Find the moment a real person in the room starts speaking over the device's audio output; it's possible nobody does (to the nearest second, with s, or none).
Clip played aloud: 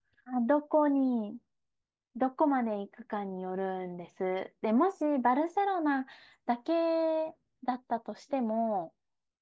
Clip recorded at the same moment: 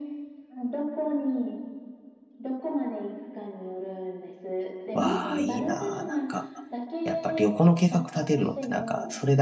5 s